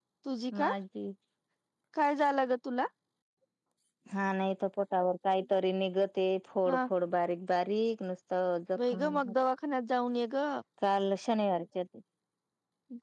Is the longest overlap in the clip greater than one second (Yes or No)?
No